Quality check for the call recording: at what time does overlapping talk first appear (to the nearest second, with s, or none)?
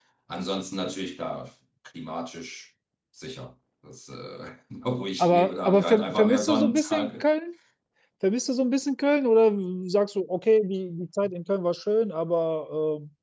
5 s